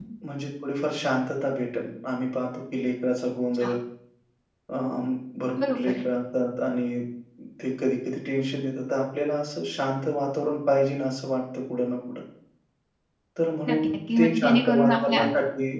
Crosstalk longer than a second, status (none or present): present